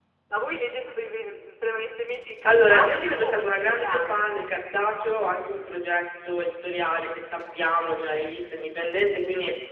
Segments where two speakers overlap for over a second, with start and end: 2.4-4.2

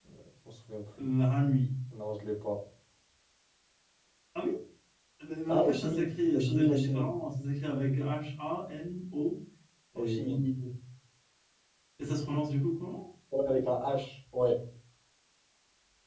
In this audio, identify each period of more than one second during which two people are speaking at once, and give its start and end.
5.5-7.1

